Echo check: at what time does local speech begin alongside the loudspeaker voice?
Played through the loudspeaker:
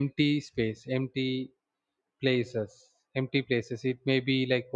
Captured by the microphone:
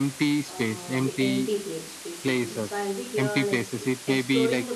0.5 s

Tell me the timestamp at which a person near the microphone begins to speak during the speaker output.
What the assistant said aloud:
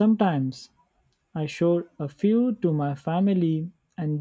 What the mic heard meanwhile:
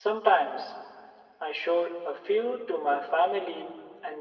none

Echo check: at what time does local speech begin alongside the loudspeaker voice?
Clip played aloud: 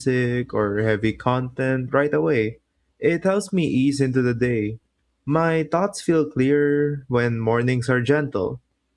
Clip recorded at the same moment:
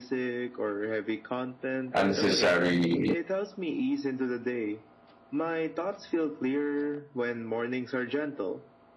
1.9 s

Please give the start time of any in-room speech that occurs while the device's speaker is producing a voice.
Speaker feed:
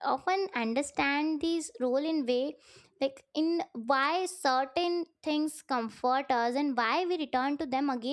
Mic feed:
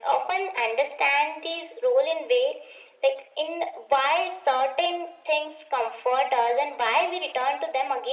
none

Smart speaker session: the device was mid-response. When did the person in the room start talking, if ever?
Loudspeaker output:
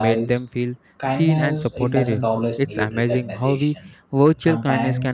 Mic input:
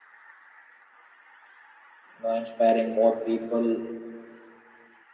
2.2 s

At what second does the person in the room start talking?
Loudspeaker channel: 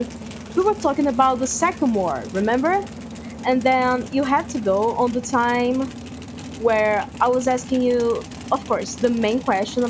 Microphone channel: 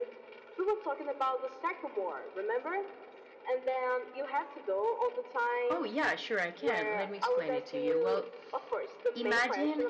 5.7 s

